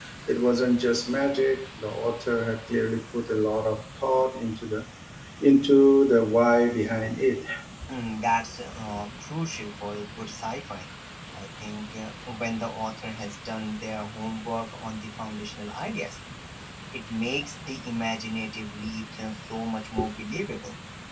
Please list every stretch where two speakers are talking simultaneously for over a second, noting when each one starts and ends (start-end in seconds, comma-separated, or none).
none